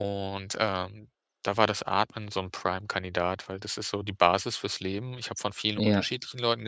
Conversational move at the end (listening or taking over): listening